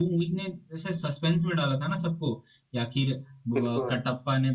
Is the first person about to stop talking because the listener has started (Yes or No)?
No